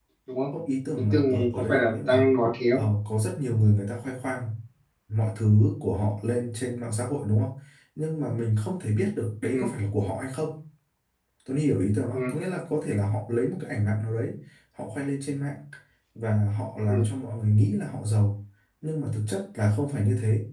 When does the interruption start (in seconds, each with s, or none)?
0.9 s